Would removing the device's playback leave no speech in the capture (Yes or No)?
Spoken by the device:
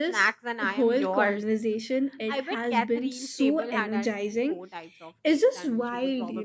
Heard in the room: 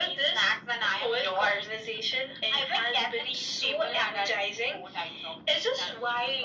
Yes